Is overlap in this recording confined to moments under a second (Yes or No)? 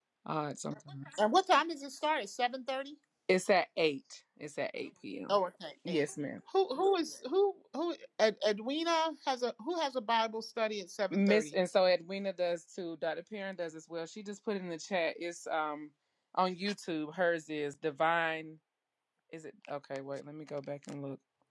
Yes